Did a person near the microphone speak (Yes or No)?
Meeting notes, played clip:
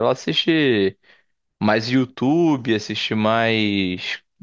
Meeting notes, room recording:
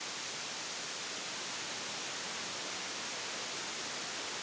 No